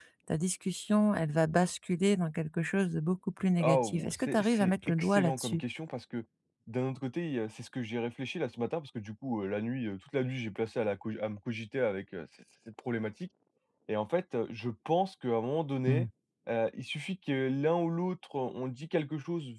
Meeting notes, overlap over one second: present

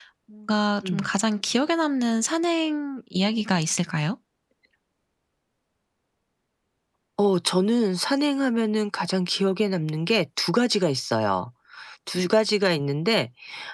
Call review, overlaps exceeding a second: none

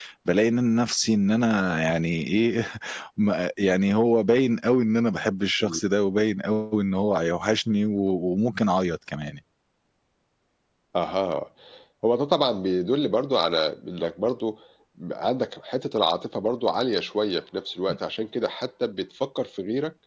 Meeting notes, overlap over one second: none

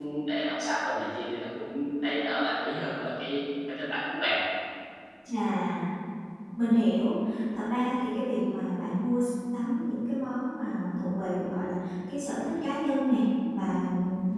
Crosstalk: none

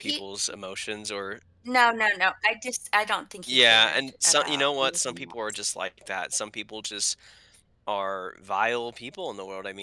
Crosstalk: present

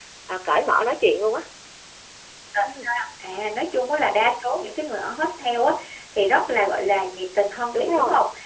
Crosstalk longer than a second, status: none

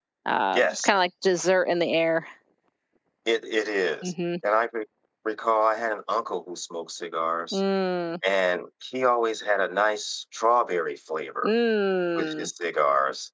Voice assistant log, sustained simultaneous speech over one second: none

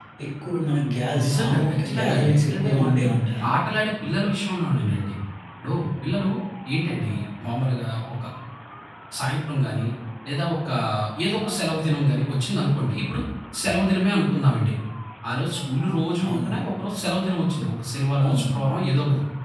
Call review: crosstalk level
present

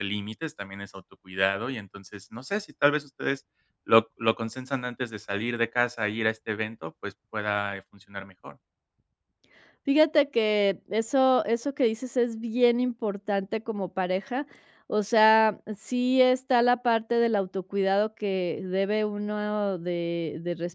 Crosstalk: none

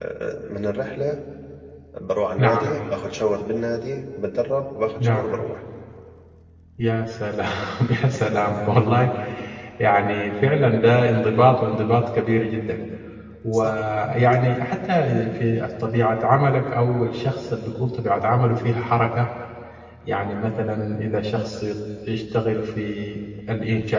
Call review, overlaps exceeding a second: none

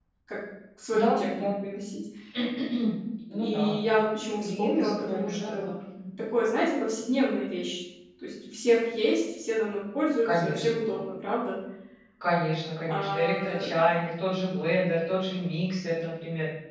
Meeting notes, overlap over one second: present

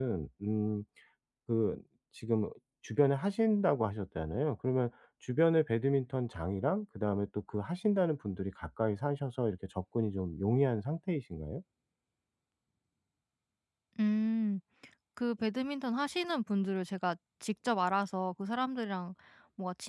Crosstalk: none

